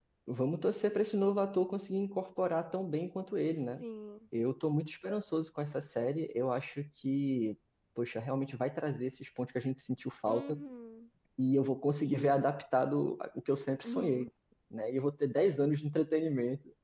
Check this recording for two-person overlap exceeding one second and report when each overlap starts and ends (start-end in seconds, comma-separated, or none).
none